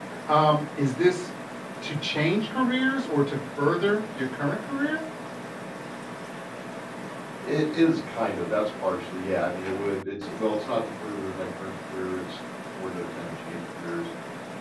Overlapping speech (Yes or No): No